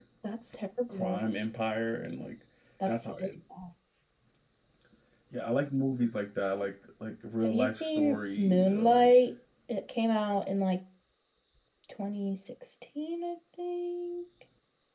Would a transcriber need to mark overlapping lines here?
Yes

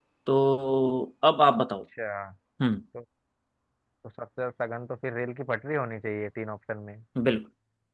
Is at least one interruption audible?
No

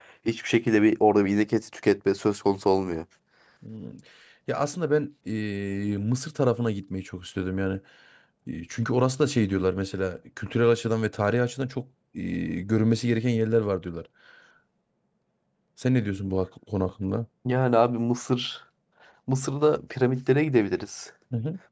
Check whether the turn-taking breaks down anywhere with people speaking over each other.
No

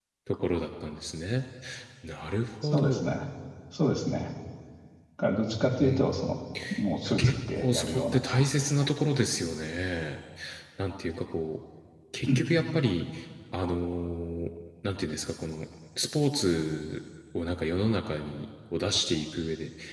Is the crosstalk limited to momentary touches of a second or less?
No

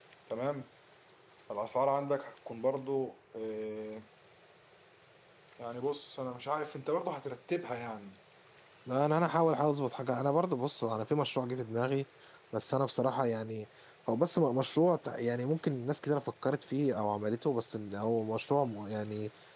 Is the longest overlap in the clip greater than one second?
No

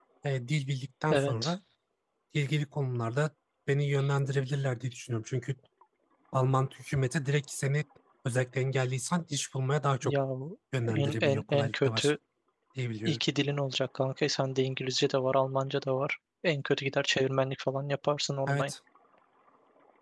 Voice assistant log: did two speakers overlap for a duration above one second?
Yes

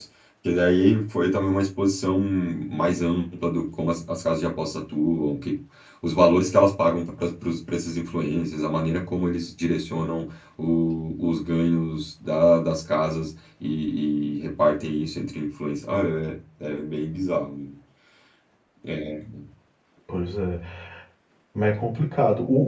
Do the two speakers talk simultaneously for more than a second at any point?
No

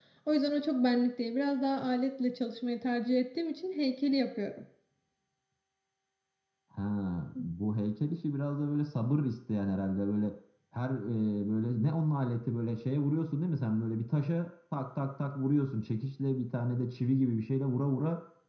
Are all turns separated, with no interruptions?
Yes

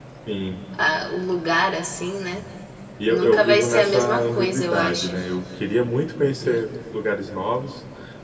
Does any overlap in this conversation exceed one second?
Yes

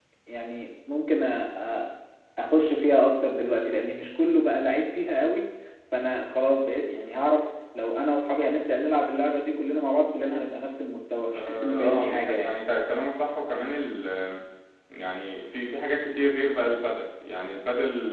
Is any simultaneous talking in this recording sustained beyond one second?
Yes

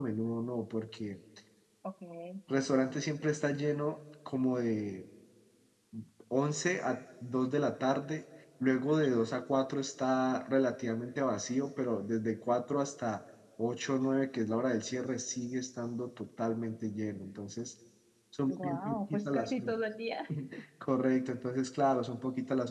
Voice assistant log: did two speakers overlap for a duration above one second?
Yes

